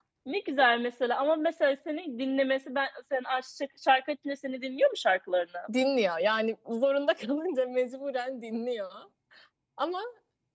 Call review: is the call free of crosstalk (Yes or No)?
Yes